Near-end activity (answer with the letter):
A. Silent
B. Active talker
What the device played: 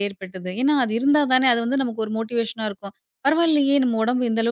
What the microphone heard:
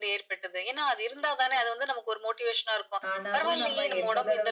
B